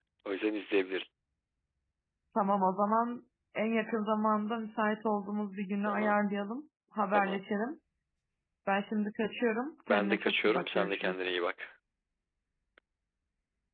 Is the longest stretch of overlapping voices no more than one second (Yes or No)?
No